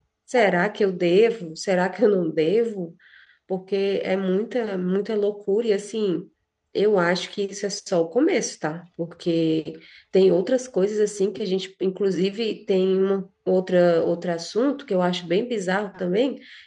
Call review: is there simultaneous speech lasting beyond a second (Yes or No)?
No